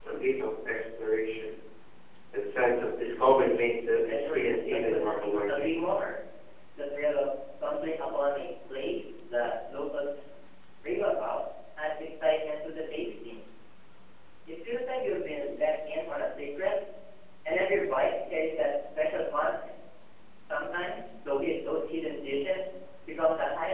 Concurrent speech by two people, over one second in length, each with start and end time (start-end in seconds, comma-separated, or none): 4.1-5.7